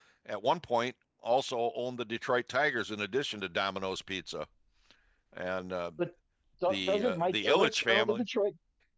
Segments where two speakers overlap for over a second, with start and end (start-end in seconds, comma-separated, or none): 6.7-8.2